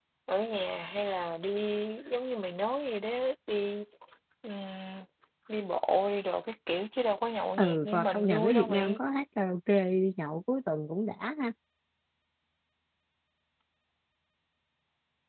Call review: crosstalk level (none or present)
present